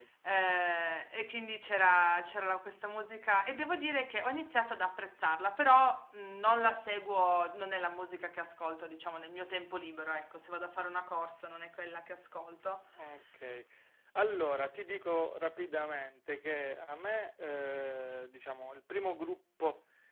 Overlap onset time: none

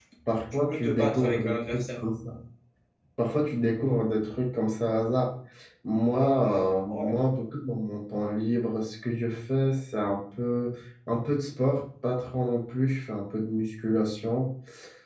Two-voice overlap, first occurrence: 0.5 s

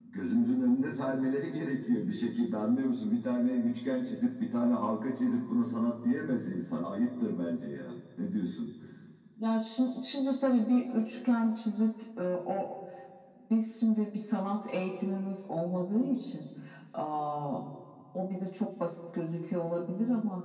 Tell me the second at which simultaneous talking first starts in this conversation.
none

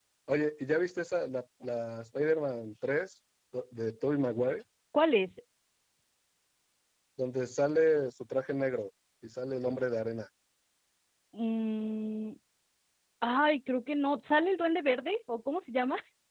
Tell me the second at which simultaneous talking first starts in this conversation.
none

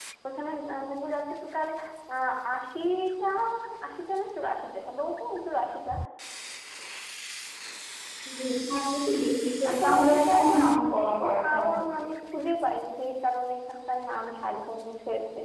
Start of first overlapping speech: 9.6 s

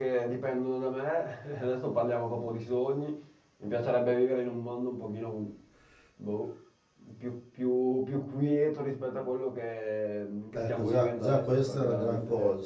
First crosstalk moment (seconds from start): 10.6 s

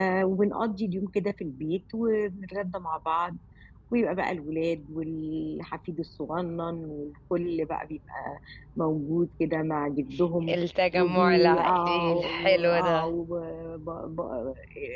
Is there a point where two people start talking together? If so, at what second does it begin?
10.9 s

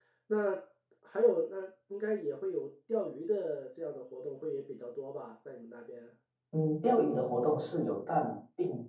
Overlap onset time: none

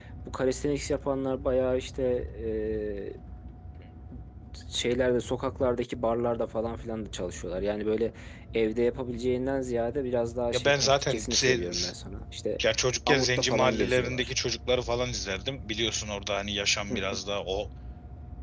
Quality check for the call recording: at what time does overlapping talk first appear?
10.5 s

